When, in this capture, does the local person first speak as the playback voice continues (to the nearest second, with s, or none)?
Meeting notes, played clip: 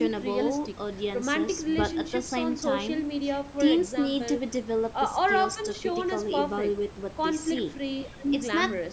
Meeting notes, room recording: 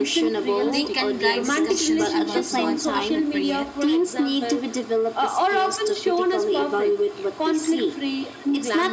1 s